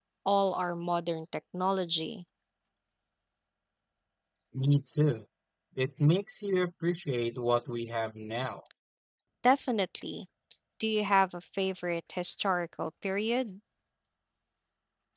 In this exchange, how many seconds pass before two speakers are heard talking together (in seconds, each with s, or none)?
none